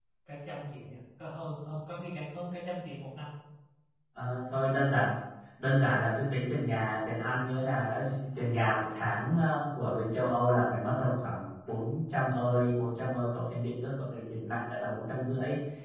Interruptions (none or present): none